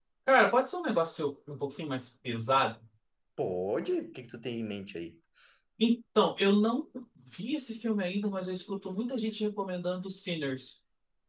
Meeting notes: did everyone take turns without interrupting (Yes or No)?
Yes